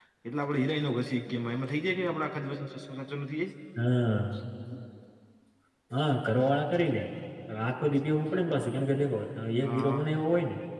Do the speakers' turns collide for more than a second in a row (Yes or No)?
No